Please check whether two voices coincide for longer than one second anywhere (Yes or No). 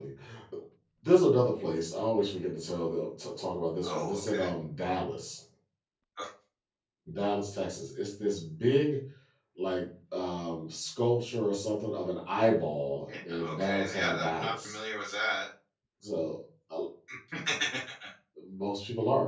Yes